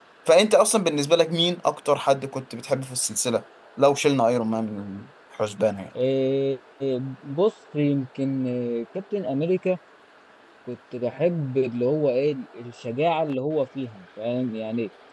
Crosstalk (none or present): none